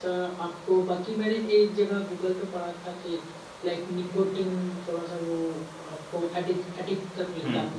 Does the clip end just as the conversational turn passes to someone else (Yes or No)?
Yes